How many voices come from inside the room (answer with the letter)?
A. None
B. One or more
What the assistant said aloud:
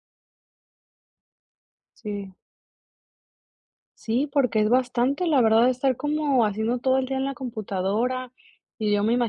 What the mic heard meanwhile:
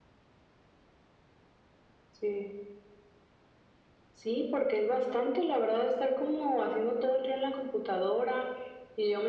A